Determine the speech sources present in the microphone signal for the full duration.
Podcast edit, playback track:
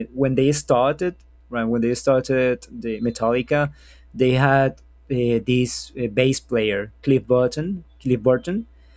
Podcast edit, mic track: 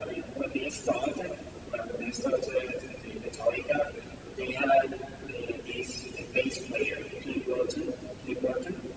echo only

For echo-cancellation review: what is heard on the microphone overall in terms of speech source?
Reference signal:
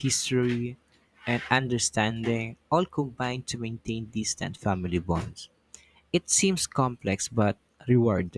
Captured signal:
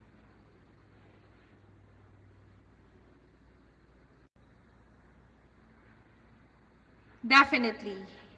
user only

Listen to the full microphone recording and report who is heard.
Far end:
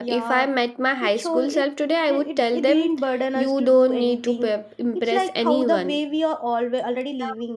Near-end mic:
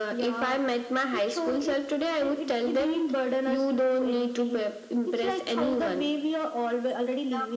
echo only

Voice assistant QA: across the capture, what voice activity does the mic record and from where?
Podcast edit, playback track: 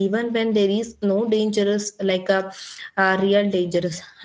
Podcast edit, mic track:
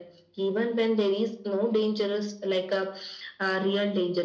echo only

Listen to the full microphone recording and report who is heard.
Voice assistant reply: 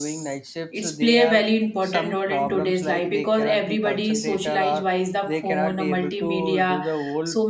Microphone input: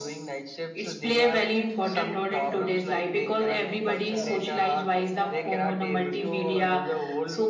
both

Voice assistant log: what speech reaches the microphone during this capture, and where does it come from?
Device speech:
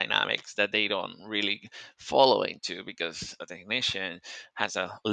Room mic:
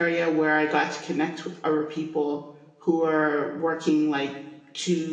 user only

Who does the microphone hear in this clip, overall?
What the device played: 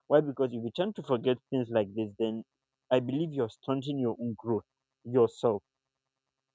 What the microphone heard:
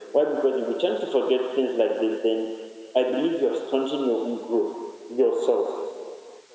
echo only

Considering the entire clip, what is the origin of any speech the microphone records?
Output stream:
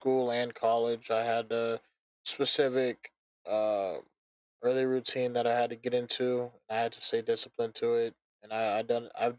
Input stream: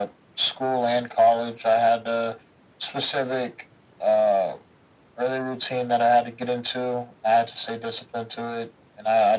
echo only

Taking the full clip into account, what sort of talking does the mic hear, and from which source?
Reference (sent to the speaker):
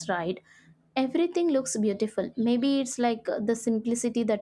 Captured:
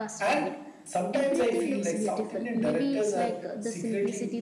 both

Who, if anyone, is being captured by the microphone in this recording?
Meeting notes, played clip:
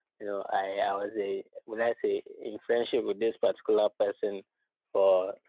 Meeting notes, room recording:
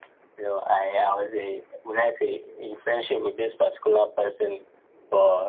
echo only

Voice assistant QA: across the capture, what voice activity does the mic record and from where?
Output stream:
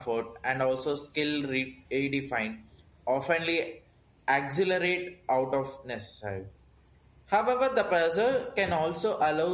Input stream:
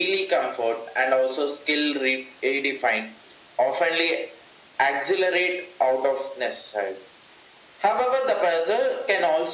echo only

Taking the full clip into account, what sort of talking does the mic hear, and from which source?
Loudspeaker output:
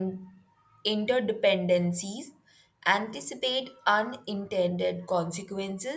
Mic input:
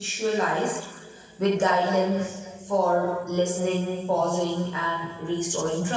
user only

